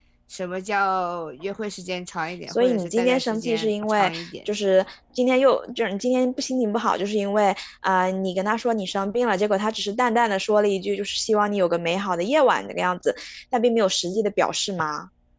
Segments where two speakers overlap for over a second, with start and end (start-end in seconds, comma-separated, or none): 2.5-4.3